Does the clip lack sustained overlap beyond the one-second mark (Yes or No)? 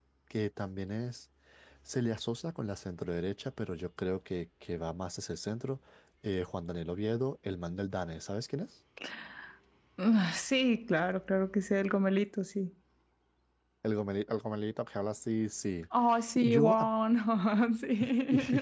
Yes